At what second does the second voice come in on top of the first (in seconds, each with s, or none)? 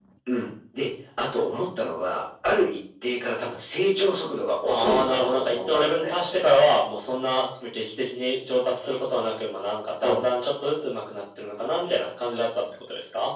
4.7 s